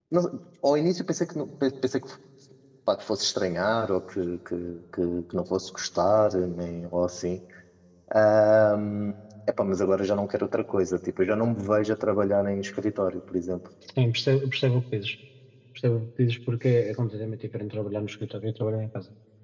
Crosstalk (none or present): none